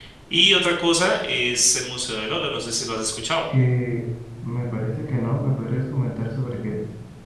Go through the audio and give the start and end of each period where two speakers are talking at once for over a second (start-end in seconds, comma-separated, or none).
none